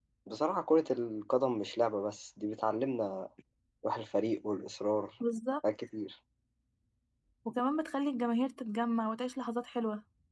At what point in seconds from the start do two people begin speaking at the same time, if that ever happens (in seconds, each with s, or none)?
none